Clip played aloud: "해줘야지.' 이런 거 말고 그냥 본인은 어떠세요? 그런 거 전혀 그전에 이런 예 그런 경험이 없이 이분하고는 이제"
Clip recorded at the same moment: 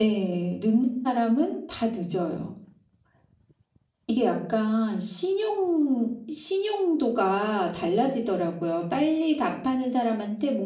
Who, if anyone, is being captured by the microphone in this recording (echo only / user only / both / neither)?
user only